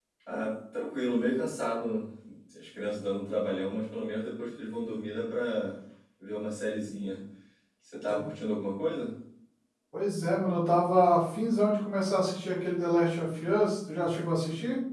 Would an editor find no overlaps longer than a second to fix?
Yes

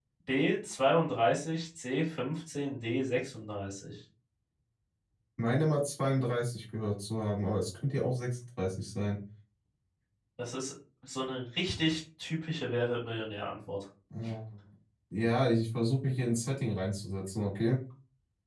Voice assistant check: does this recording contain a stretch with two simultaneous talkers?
No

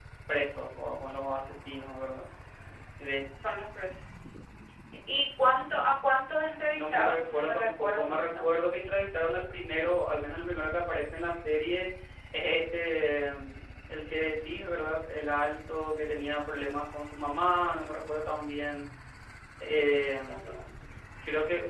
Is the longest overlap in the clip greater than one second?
Yes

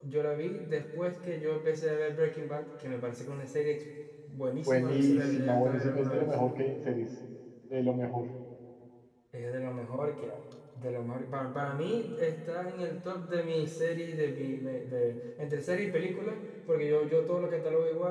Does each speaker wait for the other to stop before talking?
No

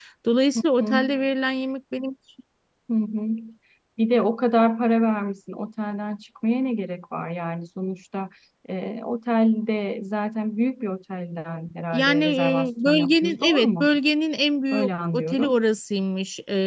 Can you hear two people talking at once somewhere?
Yes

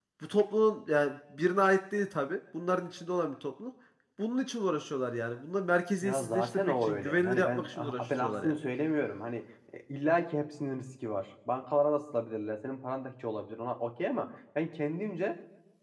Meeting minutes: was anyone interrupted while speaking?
Yes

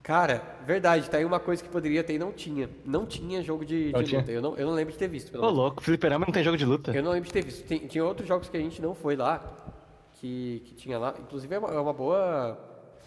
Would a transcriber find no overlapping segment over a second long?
Yes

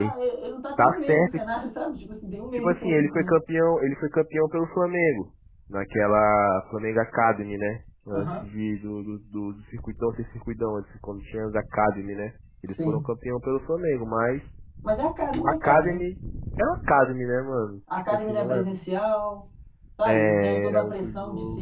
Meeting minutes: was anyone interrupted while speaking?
Yes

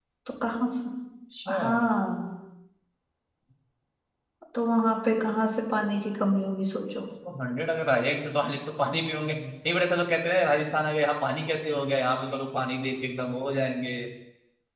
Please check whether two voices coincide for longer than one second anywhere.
No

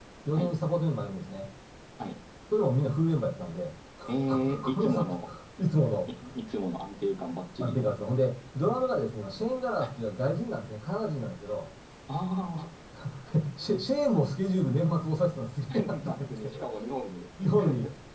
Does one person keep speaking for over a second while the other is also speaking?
Yes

